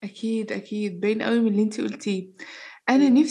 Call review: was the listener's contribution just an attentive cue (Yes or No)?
Yes